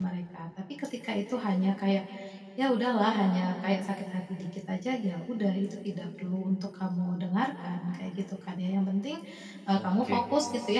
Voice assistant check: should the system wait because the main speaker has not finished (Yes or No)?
Yes